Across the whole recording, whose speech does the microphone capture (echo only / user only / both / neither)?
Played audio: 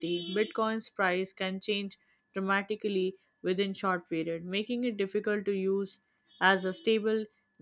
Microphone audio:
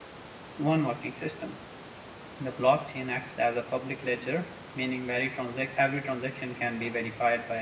user only